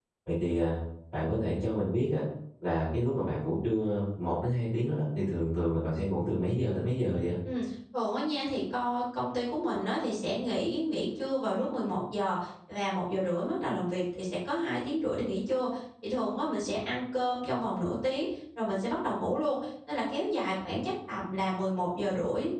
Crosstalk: none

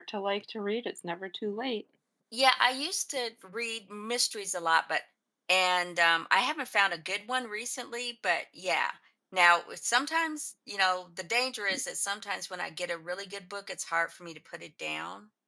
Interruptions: none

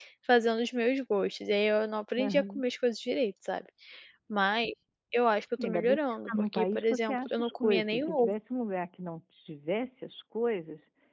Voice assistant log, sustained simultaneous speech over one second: present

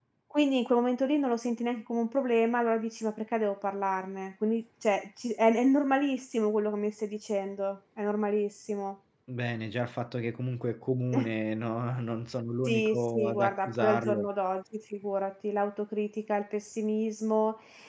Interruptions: present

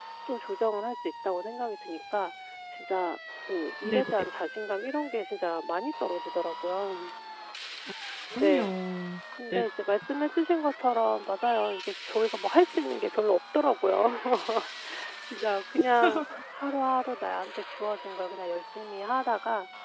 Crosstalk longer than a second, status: none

